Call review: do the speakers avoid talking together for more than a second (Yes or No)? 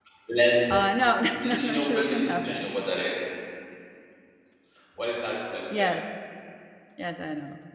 No